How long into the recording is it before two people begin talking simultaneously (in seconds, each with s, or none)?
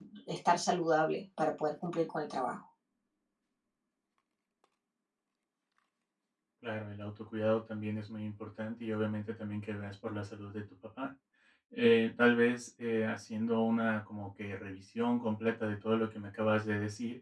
none